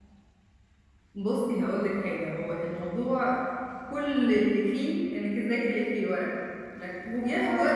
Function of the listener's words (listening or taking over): listening